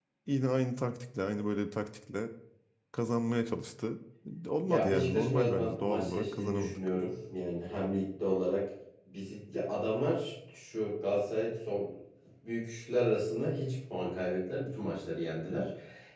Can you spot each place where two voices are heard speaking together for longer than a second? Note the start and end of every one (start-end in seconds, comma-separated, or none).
4.6-6.8